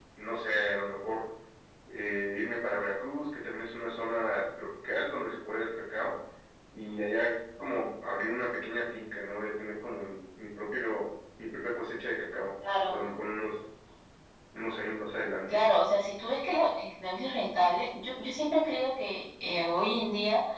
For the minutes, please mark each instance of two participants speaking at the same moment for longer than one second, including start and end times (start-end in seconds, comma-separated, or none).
none